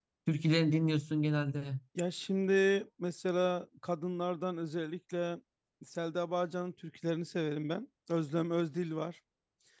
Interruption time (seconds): none

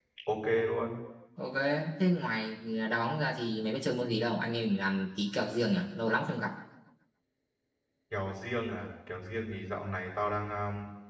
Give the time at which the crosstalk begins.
none

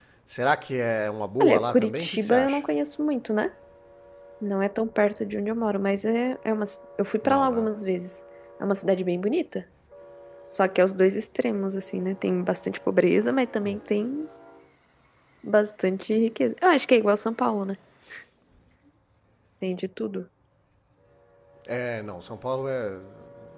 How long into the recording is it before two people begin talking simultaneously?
1.4 s

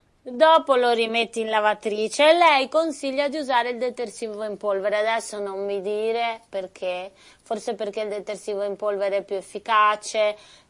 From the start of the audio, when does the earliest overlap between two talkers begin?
none

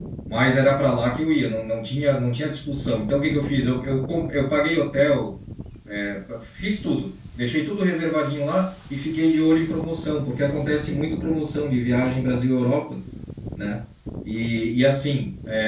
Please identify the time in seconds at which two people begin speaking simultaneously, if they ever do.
none

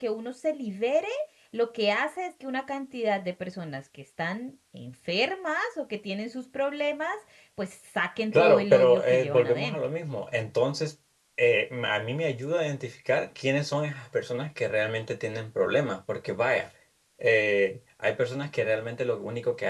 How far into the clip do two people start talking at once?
8.3 s

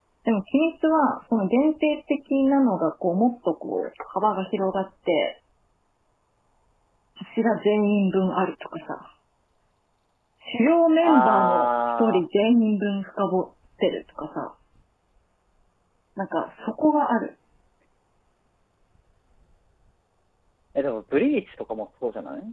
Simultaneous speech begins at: 11.0 s

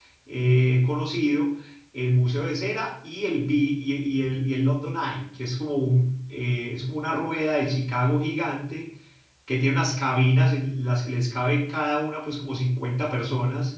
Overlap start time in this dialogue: none

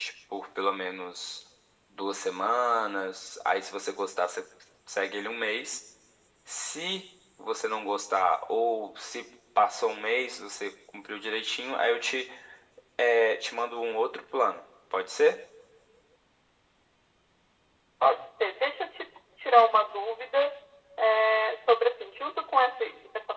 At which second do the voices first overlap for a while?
none

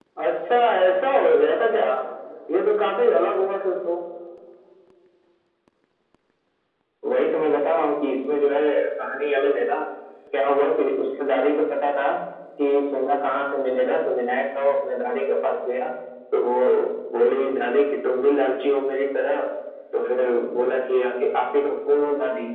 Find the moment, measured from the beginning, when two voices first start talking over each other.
none

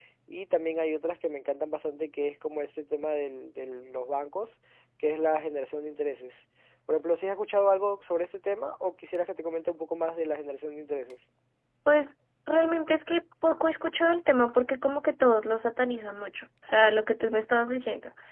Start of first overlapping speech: none

